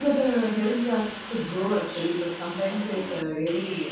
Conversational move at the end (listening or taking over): listening